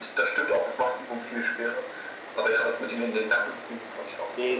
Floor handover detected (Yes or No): Yes